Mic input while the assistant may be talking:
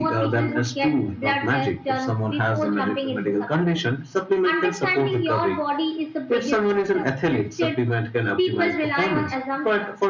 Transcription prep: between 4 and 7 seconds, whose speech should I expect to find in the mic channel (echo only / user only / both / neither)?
echo only